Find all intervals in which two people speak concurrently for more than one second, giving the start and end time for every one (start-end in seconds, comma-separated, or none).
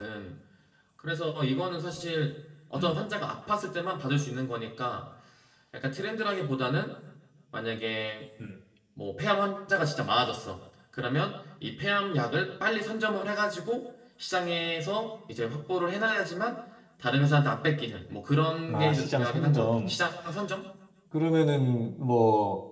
18.7-19.9